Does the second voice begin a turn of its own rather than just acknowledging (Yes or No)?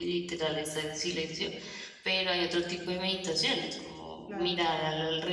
No